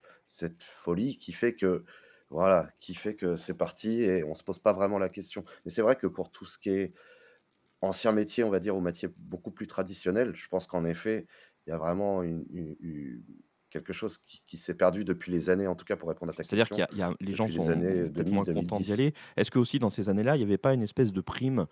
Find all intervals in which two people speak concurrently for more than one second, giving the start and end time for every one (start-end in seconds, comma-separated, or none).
17.4-19.0